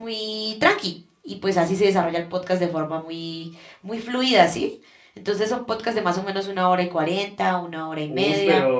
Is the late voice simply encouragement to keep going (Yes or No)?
No